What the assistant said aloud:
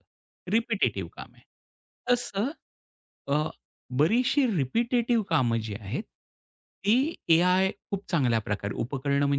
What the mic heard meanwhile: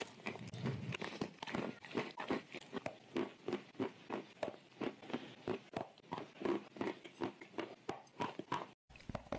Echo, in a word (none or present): none